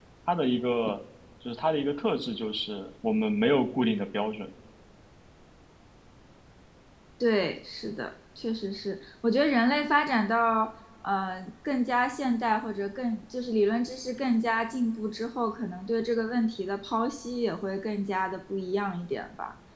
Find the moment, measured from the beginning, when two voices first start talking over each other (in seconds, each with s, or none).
none